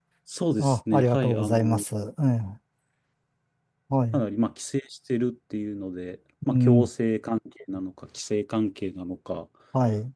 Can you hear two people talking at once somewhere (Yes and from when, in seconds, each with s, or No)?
Yes, from 0.6 s